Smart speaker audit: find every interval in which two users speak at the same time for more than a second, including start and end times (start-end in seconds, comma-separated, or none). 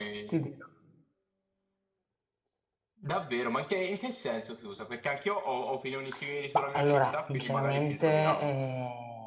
6.5-8.5